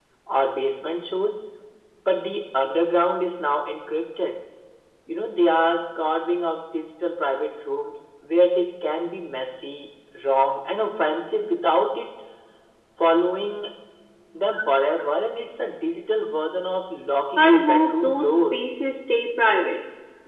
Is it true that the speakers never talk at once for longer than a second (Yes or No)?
No